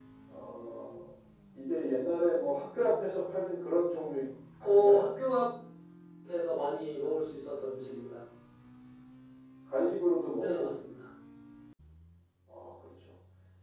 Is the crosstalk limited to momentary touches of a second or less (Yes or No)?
Yes